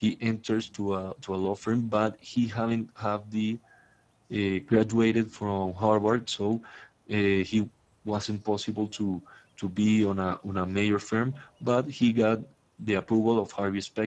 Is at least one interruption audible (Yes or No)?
No